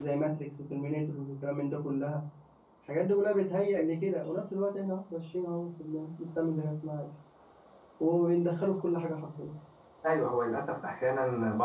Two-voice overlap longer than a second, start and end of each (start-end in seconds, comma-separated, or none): none